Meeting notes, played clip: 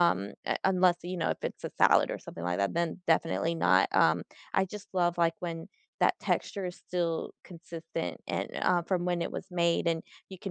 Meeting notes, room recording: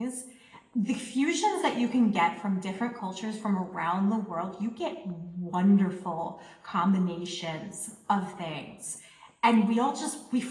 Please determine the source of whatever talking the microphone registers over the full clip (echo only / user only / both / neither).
user only